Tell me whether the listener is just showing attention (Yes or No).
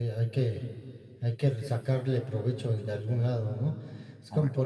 Yes